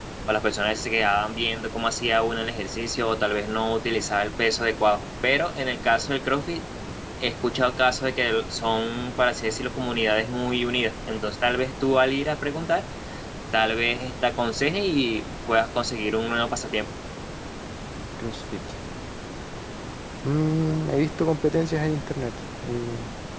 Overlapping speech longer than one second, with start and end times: none

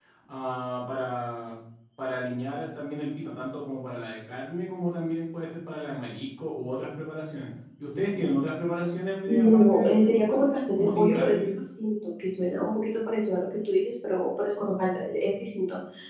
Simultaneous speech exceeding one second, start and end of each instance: 9.3-11.6

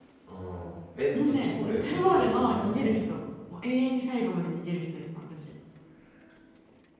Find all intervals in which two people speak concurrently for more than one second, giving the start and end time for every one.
1.2-3.1

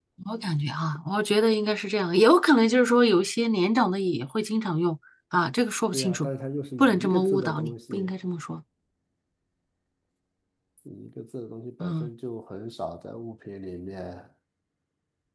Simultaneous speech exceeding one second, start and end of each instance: 6.8-8.1

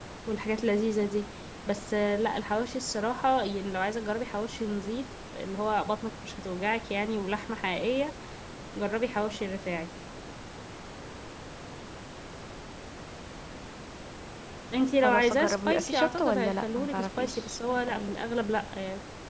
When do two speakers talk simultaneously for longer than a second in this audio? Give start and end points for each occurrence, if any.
15.0-18.1

